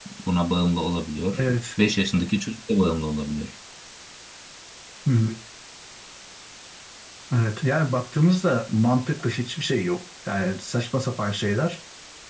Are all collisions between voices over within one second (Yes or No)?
Yes